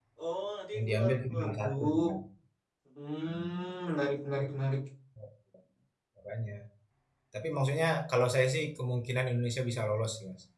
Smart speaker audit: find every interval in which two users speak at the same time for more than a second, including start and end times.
0.7-2.1

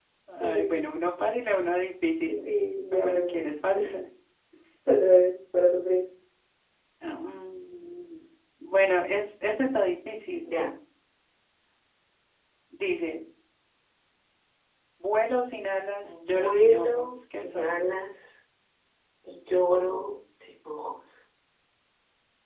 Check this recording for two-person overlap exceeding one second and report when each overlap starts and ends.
16.0-17.8

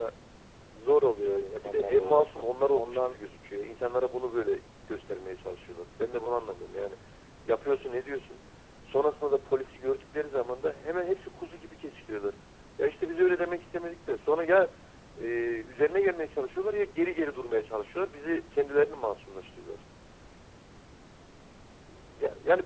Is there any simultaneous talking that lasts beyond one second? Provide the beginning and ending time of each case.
1.5-3.2

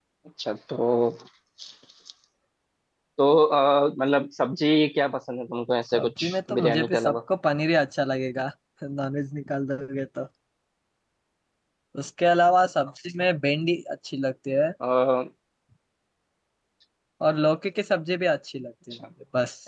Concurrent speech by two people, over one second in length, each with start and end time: 5.9-7.2

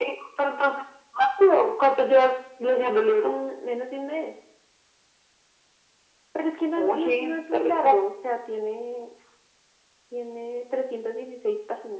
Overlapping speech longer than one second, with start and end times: 6.8-8.0

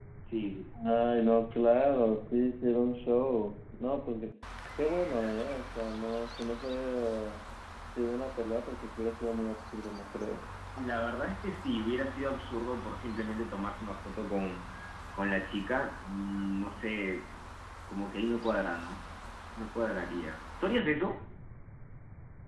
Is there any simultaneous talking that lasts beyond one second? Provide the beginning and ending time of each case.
none

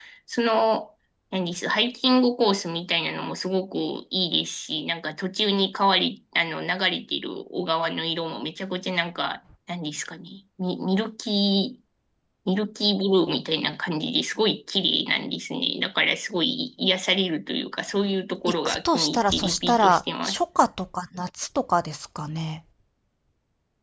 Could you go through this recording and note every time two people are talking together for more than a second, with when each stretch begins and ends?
18.5-20.4

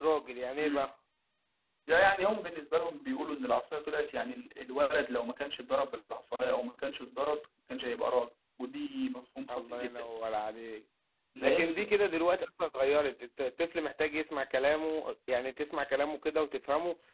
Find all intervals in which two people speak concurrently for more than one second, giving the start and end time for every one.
none

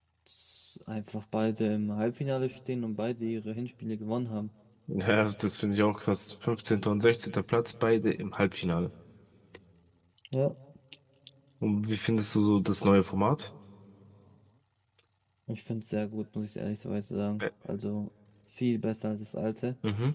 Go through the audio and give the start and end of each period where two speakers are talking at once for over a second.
none

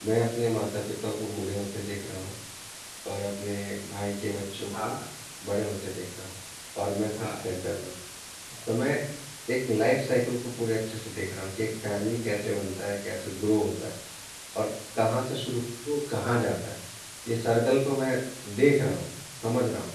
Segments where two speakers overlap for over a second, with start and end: none

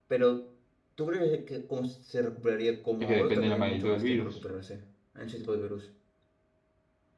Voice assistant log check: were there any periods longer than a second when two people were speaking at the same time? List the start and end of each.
3.0-4.4

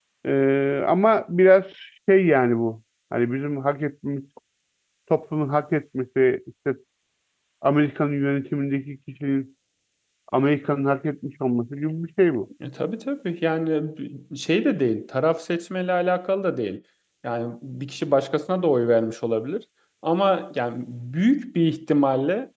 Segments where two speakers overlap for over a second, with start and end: none

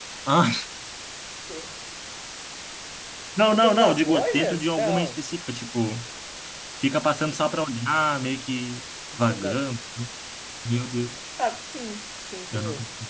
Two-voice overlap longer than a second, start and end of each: 3.5-5.2

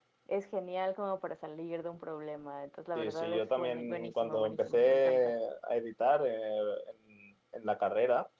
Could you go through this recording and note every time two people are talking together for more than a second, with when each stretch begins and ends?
3.0-5.3

